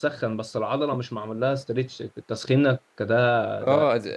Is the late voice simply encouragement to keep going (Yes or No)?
No